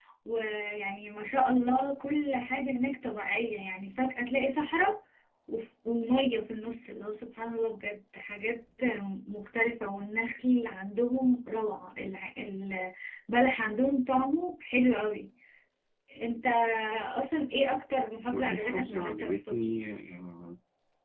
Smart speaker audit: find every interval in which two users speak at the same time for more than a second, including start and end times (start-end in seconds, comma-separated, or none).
18.3-19.6